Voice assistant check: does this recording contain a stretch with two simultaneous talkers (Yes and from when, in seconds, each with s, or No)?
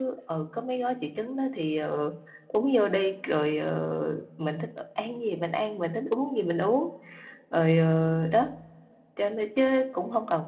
No